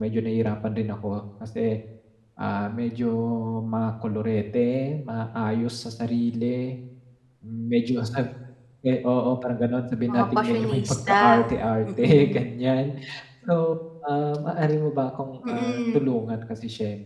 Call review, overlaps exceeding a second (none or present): present